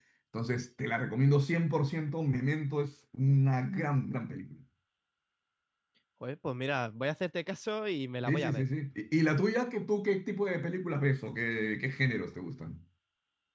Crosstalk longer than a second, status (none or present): none